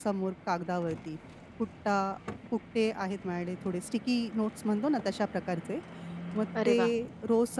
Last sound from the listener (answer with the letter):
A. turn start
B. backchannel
B